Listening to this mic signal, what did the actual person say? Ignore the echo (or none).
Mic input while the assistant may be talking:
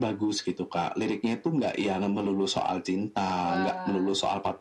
Wah.